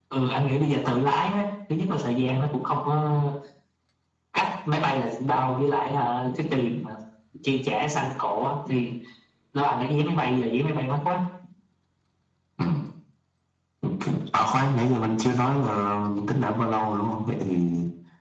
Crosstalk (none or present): none